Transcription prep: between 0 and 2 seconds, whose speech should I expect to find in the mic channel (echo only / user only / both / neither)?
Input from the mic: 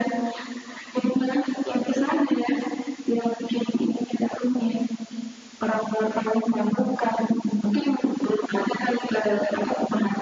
echo only